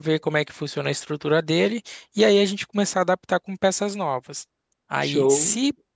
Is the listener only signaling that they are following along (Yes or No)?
Yes